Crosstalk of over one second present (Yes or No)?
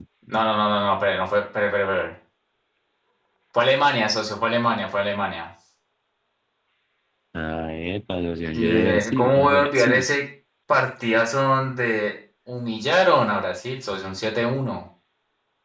Yes